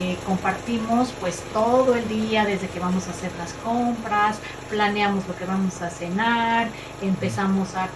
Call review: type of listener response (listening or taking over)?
listening